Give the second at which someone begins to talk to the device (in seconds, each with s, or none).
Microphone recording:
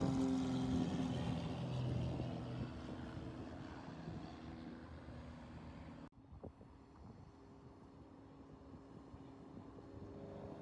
none